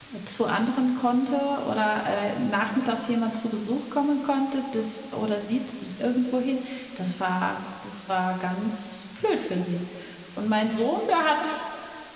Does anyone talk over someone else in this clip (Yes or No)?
No